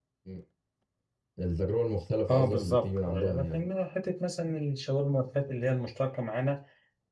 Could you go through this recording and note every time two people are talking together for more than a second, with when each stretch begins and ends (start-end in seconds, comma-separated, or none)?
2.3-3.6